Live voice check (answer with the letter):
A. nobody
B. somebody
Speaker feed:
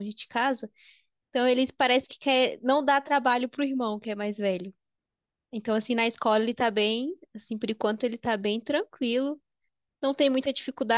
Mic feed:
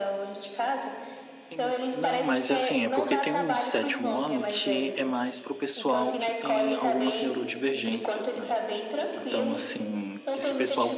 B